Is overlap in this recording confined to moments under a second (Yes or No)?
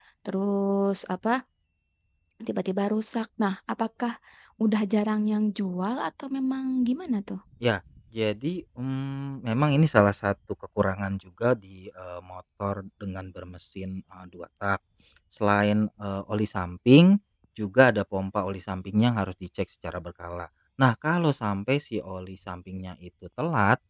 Yes